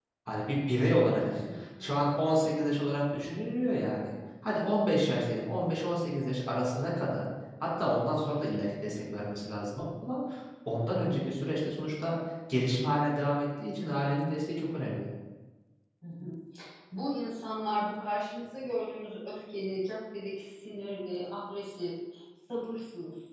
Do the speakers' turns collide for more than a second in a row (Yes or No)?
No